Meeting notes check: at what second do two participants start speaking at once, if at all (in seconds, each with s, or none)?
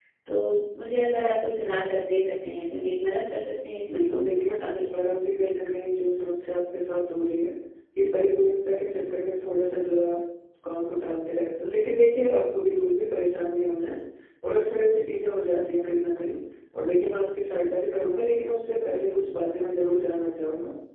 3.9 s